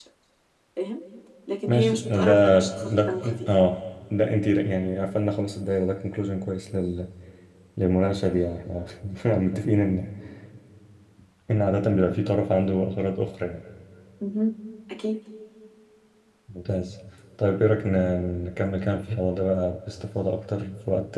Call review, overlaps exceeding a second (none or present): present